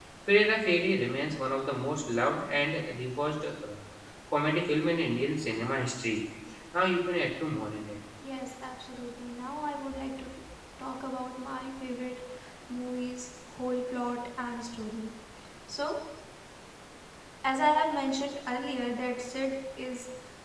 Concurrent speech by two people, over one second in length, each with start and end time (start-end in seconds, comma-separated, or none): none